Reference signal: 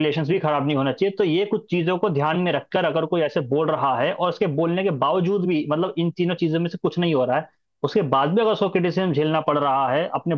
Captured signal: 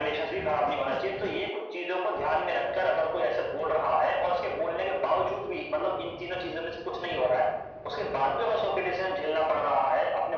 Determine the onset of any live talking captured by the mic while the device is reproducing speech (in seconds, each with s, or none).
none